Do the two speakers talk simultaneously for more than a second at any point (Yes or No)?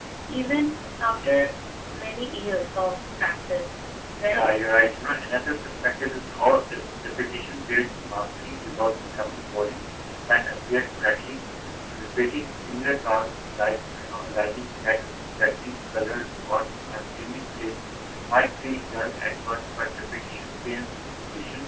No